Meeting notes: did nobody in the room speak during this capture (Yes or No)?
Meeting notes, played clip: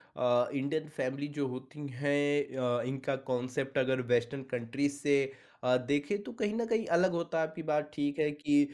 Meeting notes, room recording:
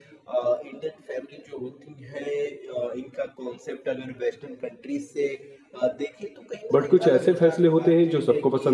No